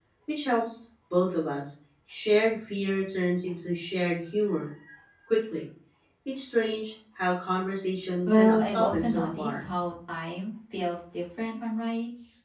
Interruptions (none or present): present